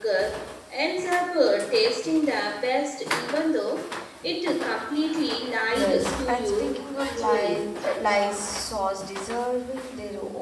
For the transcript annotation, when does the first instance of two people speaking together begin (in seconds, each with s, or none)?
5.6 s